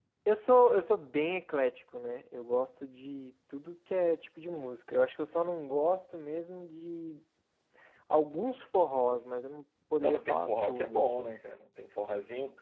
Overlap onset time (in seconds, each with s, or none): 10.0 s